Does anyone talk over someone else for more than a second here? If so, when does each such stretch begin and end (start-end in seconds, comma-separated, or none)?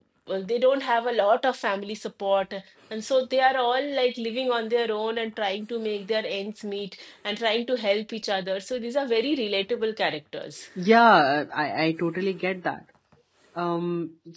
none